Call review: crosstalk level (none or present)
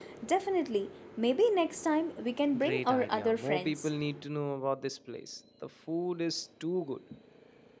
present